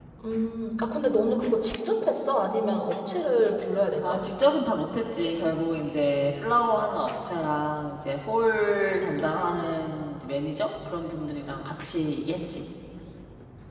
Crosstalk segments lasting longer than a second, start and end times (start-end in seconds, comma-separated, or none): none